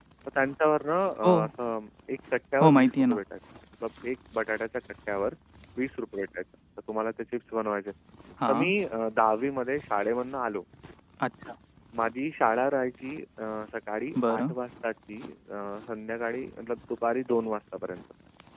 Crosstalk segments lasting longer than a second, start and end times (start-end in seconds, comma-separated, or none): none